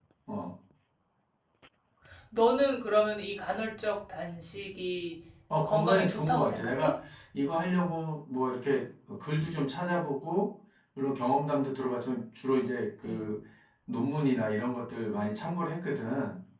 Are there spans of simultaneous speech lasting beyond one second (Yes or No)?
Yes